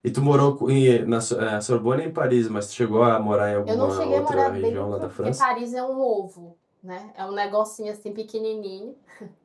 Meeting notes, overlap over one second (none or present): present